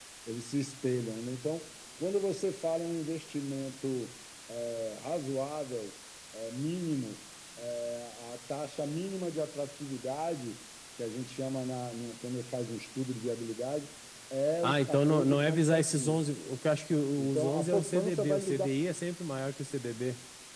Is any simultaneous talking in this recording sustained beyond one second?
Yes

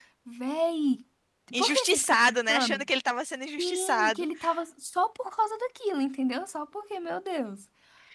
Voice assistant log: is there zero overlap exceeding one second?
No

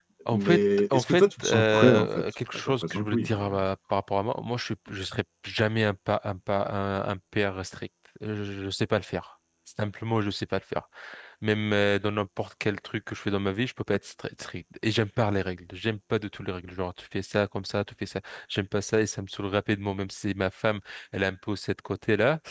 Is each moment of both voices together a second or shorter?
No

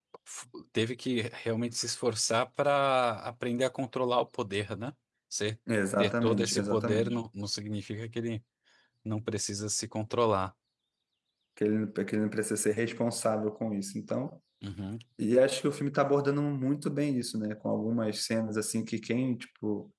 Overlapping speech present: Yes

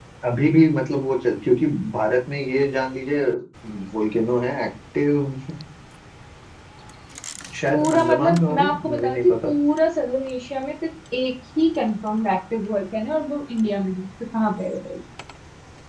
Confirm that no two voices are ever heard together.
No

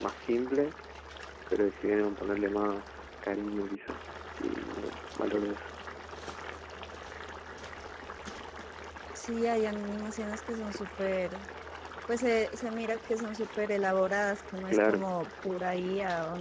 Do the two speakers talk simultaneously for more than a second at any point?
No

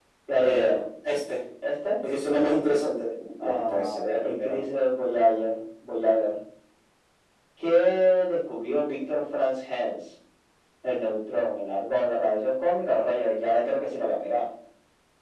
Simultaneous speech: Yes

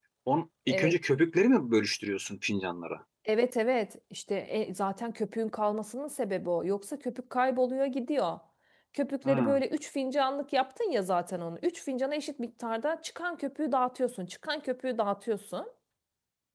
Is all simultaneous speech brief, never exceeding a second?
Yes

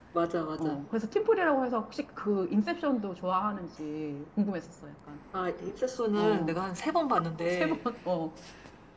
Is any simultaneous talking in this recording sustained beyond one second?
No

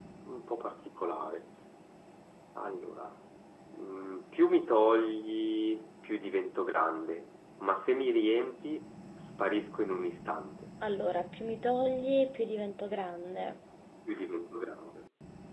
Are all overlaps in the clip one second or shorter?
Yes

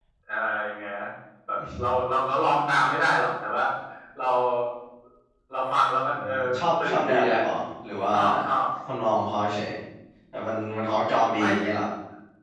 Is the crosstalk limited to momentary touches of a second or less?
No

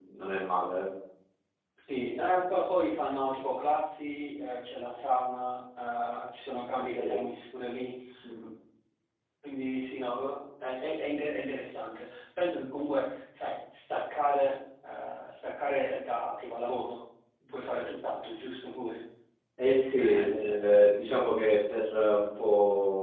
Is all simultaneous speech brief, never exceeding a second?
Yes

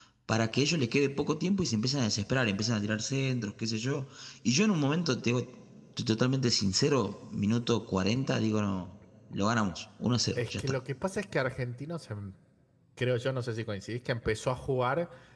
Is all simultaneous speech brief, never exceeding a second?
Yes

